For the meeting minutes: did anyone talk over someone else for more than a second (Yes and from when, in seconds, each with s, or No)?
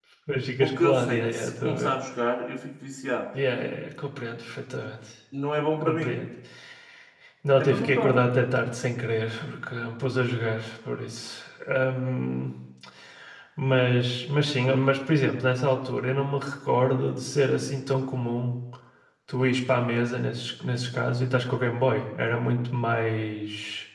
Yes, from 0.6 s